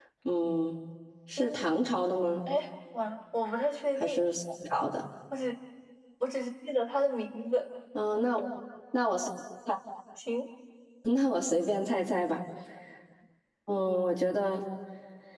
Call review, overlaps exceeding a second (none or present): none